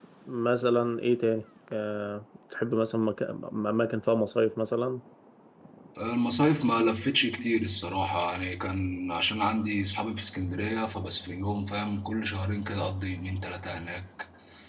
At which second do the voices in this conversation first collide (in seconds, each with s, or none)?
none